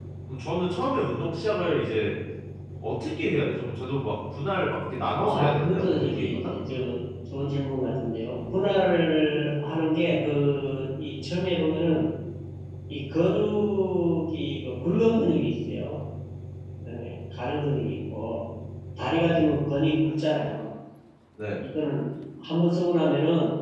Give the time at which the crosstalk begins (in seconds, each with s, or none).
5.1 s